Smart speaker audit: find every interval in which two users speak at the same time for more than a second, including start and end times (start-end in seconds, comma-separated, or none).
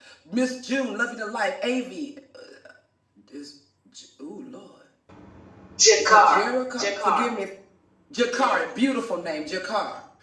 6.0-7.2